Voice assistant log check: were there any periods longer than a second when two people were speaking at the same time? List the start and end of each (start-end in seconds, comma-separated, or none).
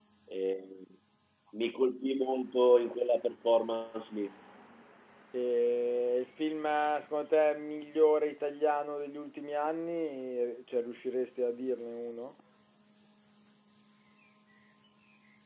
none